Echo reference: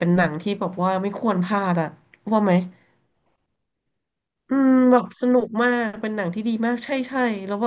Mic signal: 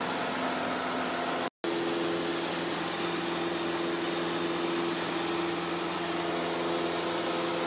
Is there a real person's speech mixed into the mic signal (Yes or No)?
No